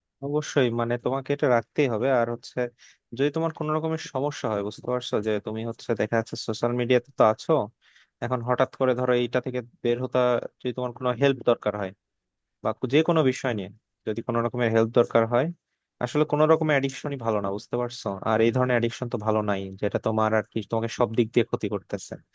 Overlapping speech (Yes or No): No